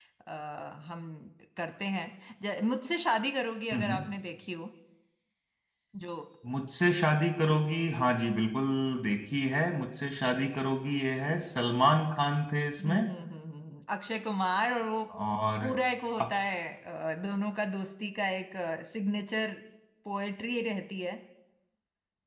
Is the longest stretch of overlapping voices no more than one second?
Yes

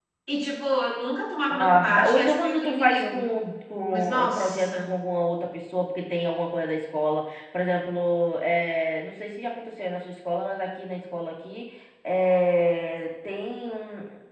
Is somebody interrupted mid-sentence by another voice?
Yes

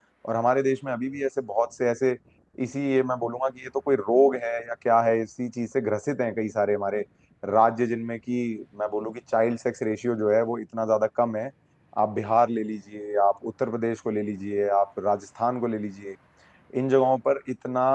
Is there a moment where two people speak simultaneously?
No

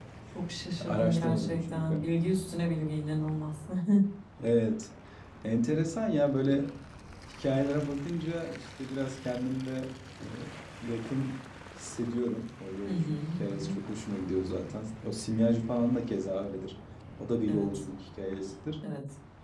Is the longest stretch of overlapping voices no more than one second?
No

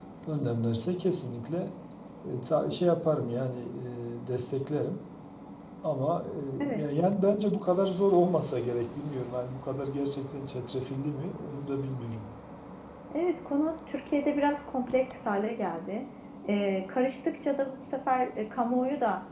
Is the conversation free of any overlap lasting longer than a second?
Yes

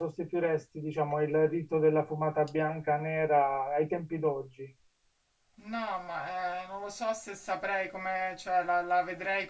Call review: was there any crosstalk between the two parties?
No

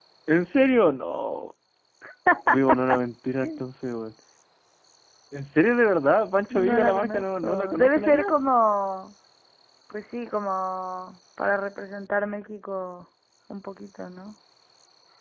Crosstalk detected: Yes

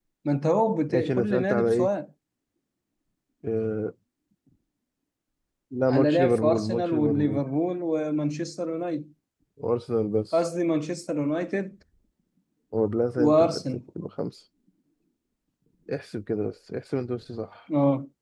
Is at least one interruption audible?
Yes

